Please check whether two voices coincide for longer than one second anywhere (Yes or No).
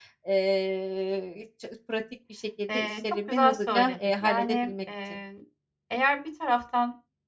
Yes